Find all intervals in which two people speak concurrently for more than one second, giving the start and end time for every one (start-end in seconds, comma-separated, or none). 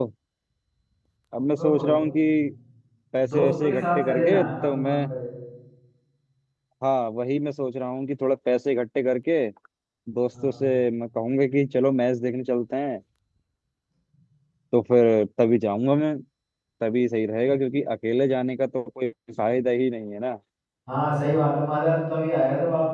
3.3-5.0